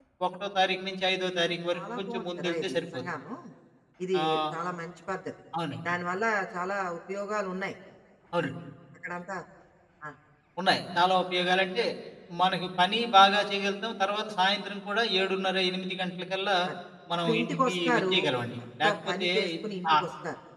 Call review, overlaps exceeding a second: present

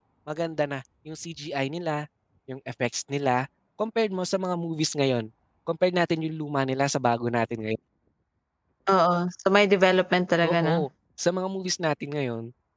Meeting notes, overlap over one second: none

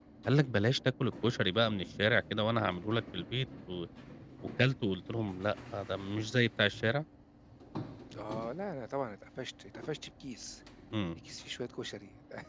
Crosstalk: none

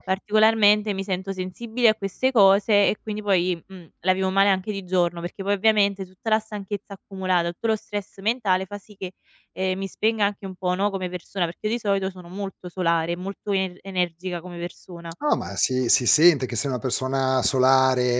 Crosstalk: none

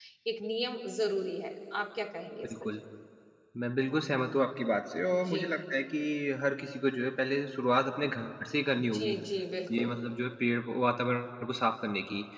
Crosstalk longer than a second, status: none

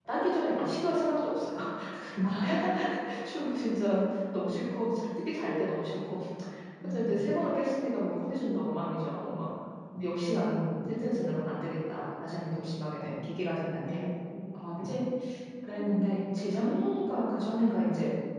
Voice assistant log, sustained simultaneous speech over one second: none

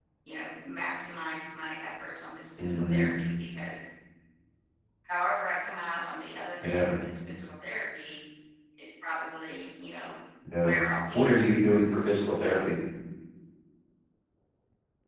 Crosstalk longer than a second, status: none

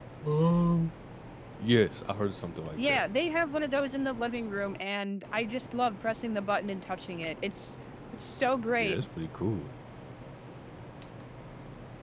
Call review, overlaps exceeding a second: none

